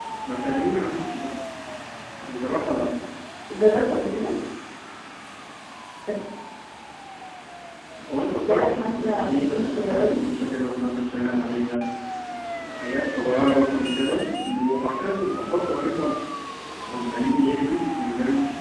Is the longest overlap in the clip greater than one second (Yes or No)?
Yes